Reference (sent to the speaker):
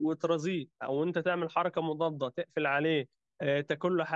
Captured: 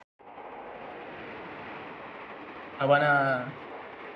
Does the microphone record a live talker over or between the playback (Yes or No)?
Yes